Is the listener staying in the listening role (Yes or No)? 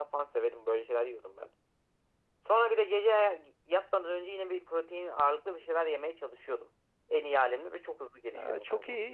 No